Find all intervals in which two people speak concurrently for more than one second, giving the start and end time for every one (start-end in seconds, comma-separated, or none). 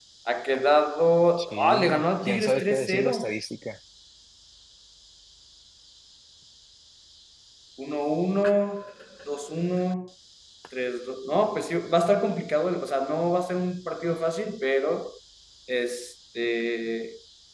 1.4-3.4